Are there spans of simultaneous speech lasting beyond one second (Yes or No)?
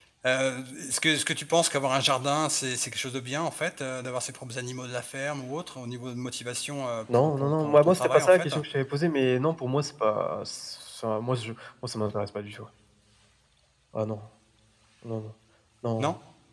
Yes